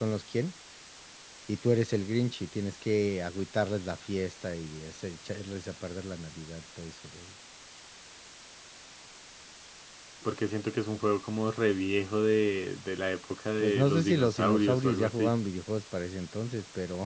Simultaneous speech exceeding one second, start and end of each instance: 13.6-15.3

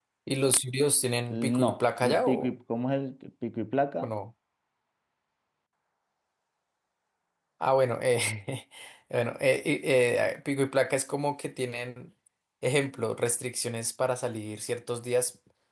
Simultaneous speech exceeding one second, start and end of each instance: 1.3-2.5

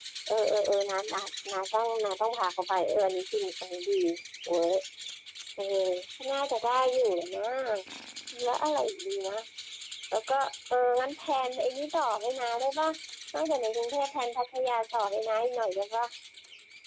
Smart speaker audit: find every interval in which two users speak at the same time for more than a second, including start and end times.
none

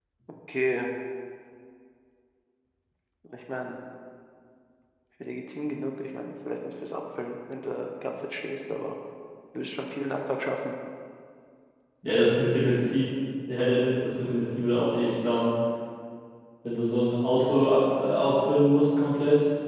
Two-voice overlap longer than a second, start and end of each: none

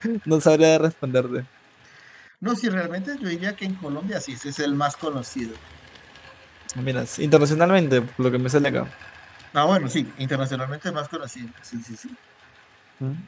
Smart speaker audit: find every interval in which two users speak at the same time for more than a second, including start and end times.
none

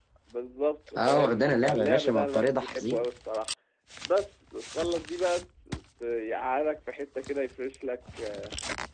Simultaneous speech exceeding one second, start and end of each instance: 1.0-3.1

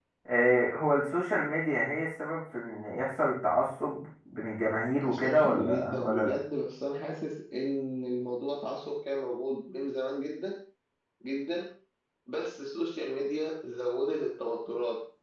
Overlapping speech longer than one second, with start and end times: 5.0-6.4

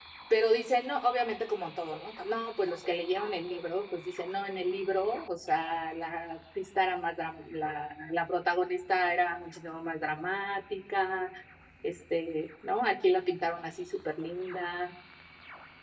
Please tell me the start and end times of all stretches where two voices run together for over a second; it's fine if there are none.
none

